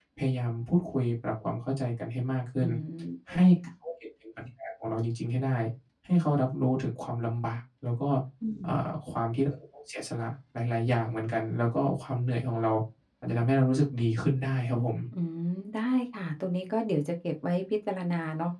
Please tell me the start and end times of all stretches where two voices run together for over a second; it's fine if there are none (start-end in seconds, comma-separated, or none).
none